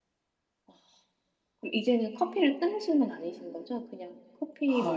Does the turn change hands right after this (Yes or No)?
Yes